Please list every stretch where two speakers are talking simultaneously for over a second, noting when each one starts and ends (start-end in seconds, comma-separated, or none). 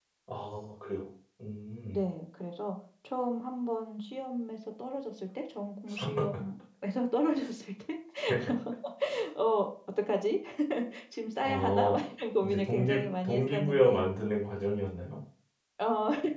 12.4-14.0